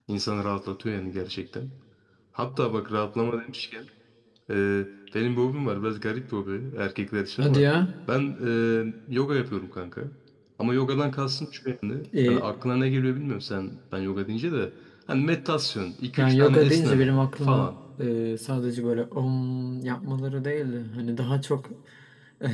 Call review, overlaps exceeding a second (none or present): present